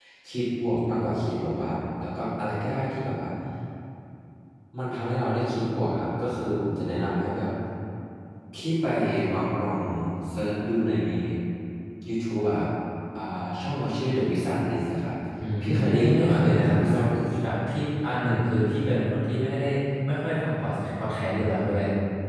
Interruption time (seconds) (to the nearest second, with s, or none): 16 s